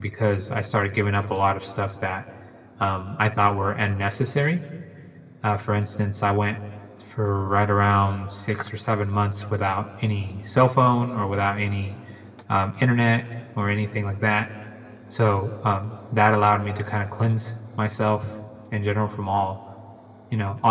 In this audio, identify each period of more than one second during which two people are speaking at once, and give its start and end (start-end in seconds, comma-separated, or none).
none